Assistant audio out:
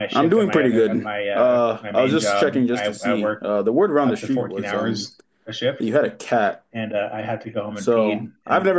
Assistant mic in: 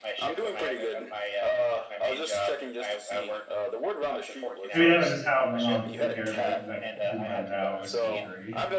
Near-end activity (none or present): present